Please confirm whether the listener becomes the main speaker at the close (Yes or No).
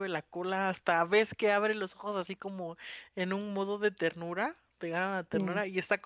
No